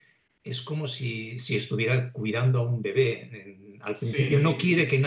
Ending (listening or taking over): listening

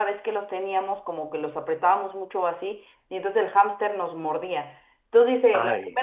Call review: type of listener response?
listening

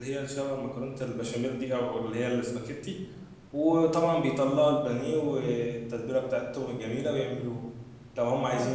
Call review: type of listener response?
listening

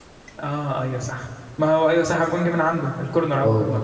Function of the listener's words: taking over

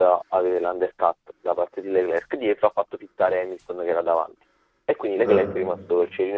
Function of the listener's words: listening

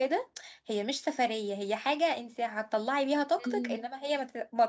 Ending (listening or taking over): listening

